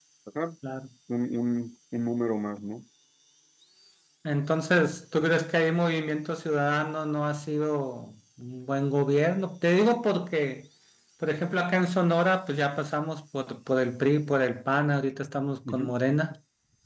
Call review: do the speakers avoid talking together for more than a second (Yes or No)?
Yes